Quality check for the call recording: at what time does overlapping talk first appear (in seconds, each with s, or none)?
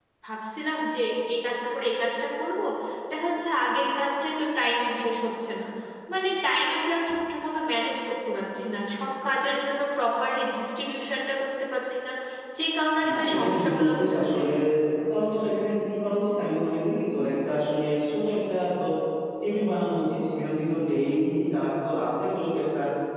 13.1 s